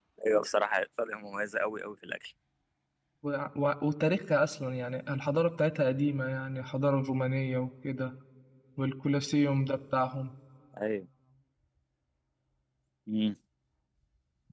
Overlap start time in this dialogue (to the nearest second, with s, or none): none